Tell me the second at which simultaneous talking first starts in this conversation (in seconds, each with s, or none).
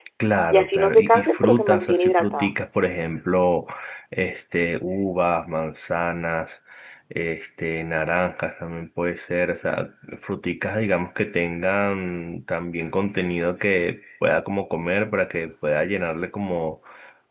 0.5 s